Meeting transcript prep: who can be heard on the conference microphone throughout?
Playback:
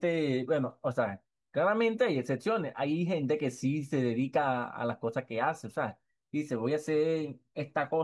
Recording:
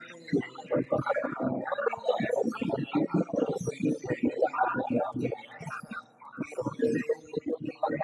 echo only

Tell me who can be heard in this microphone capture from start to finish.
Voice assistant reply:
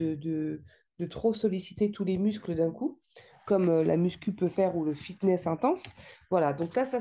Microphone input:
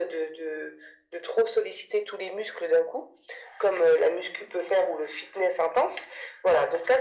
echo only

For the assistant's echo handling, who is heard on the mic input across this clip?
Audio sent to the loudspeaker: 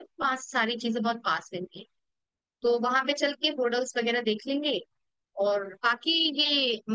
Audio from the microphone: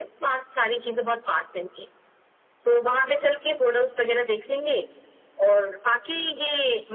echo only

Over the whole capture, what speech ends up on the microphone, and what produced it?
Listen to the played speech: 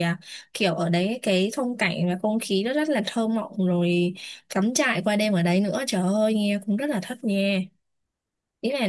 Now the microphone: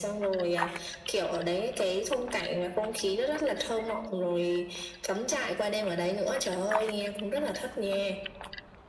echo only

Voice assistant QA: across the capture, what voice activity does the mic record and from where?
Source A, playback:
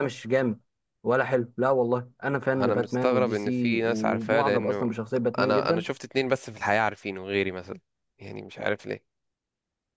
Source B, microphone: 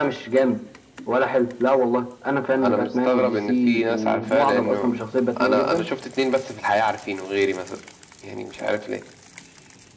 echo only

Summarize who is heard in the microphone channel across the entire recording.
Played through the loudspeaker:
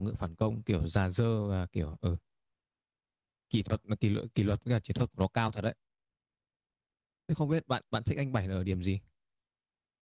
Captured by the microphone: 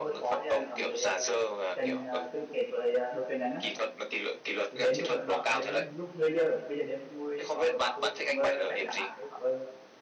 both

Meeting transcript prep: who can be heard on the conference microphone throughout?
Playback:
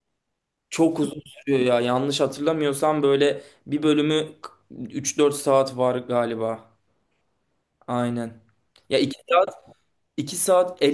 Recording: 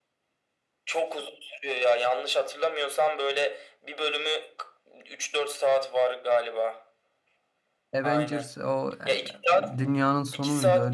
both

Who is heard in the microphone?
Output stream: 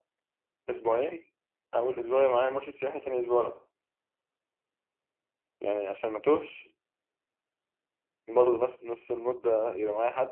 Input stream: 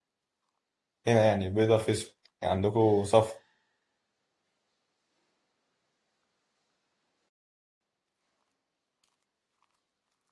user only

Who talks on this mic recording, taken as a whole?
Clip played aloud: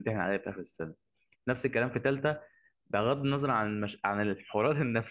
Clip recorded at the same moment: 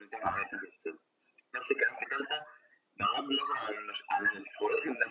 echo only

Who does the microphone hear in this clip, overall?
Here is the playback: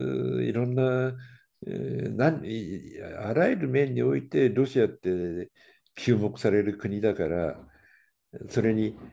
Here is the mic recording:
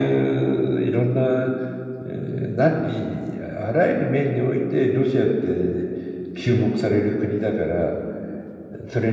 echo only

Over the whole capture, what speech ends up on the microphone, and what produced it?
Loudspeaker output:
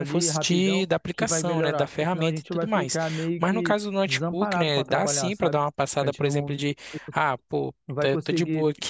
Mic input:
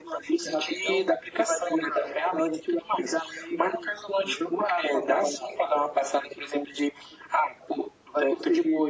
echo only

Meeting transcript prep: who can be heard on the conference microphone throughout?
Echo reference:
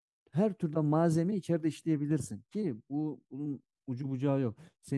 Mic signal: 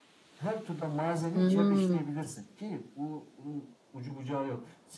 both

